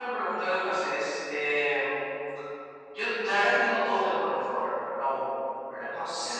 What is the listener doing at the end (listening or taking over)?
listening